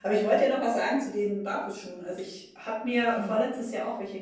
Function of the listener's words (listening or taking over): listening